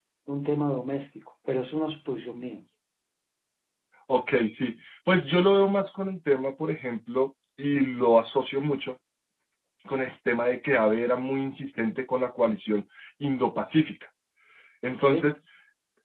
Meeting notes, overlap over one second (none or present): none